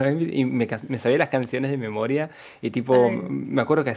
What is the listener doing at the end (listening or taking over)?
listening